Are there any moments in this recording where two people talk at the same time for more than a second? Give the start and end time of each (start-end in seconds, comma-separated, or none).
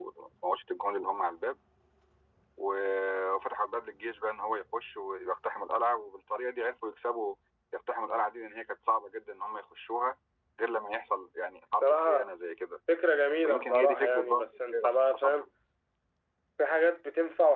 13.4-15.5